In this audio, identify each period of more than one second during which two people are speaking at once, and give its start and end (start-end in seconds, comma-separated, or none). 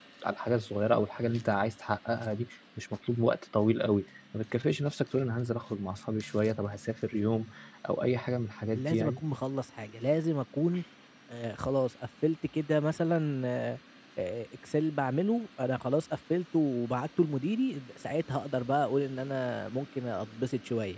none